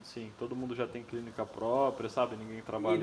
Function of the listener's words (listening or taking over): taking over